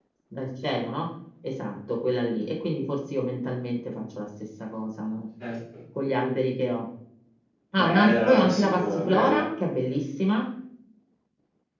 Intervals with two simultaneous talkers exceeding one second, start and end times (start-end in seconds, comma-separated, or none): 7.8-9.4